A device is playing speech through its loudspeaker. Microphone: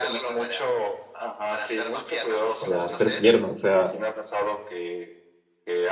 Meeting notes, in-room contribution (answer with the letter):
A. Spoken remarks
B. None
A